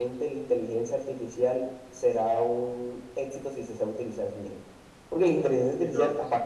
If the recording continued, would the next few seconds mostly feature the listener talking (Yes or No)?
No